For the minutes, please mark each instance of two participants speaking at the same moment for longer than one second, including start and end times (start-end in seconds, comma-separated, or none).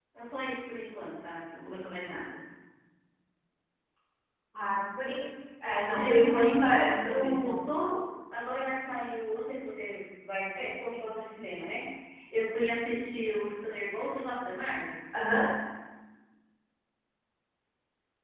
5.9-7.6